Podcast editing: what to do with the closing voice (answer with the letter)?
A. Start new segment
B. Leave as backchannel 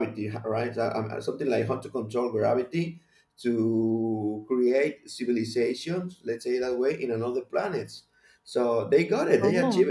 B